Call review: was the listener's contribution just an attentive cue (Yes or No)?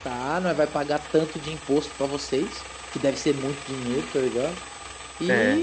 Yes